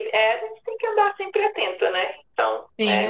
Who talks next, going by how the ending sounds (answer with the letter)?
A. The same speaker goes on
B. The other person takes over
B